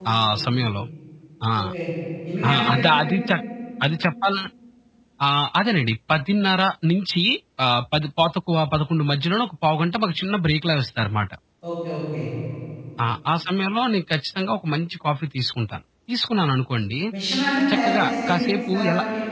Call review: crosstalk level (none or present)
present